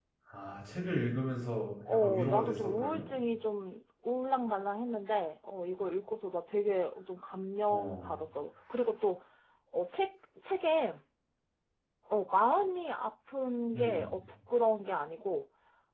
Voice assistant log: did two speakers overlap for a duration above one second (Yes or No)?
Yes